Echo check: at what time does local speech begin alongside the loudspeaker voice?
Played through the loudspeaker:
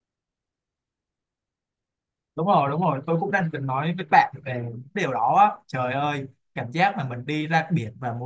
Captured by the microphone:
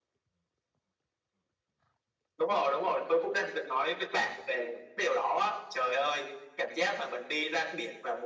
none

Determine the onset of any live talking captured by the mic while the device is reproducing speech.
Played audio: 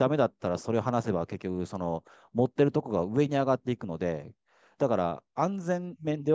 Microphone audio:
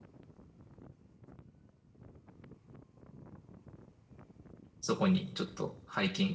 4.8 s

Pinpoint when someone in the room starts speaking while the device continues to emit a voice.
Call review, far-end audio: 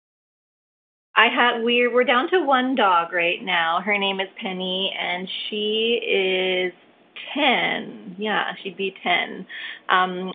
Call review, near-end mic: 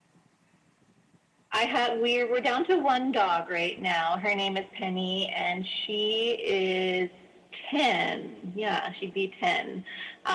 none

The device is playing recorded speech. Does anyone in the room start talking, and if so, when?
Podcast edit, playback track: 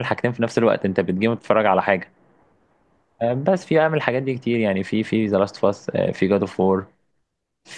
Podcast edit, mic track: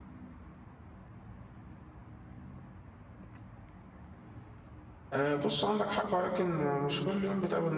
5.1 s

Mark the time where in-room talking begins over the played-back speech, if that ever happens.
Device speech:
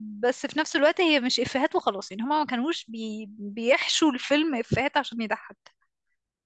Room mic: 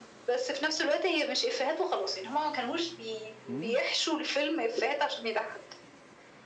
3.5 s

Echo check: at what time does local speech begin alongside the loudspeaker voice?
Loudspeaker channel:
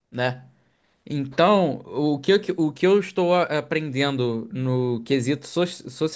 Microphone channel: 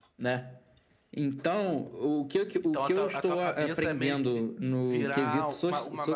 1.6 s

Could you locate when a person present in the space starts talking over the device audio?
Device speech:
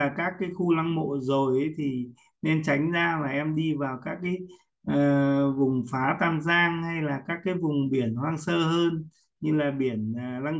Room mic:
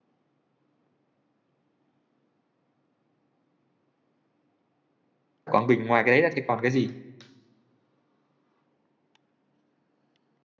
5.5 s

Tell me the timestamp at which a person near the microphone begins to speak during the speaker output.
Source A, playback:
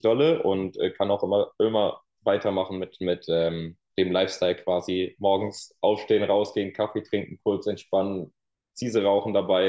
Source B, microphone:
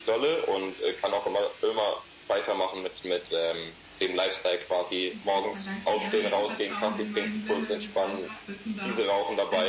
5.1 s

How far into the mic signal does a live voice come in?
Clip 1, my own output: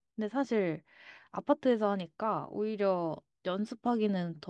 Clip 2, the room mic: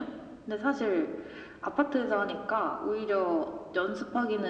none

